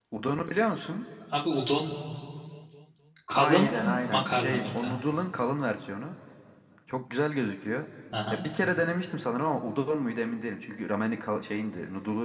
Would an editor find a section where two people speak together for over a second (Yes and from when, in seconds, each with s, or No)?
Yes, from 3.4 s